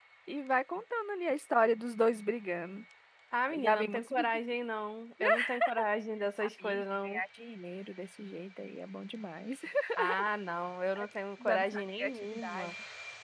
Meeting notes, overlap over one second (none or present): present